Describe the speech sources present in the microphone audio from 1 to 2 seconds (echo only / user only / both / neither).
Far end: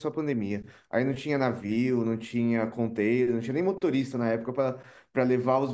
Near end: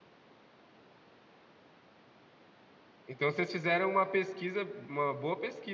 neither